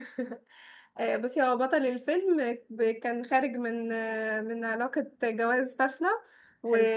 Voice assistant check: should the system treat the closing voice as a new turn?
No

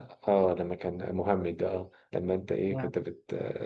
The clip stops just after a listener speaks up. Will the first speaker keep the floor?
Yes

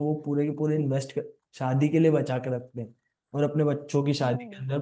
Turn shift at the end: No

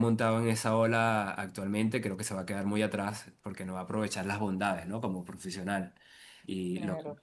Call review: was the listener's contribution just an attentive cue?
No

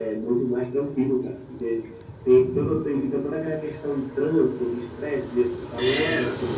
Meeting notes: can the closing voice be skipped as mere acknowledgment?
No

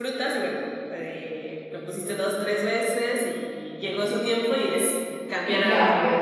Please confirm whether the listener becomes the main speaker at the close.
Yes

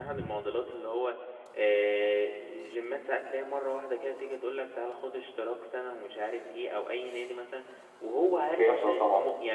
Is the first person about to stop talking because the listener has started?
No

